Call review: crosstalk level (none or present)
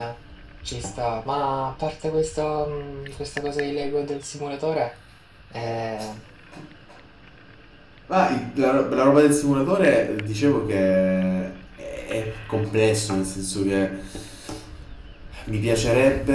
none